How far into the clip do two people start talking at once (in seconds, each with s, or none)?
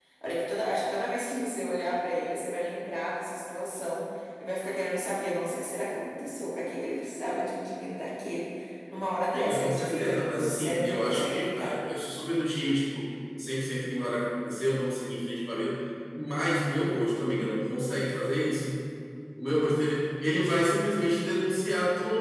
9.3 s